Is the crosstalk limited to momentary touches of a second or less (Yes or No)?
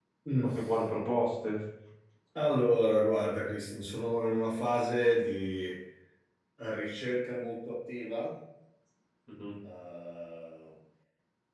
Yes